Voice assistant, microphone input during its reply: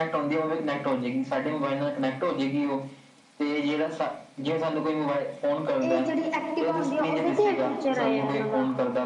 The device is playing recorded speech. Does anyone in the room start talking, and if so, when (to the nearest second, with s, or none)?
6 s